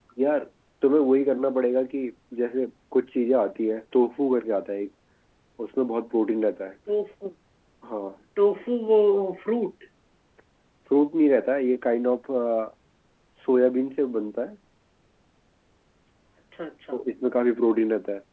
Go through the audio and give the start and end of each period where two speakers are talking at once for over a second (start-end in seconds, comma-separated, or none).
none